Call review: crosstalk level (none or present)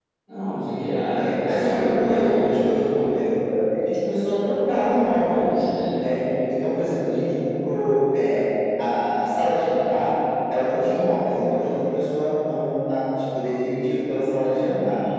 present